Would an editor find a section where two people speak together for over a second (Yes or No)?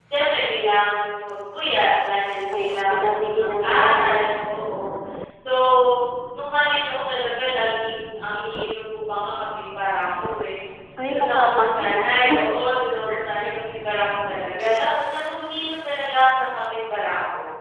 Yes